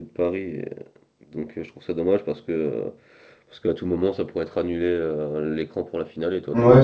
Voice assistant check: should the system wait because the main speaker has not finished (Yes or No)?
No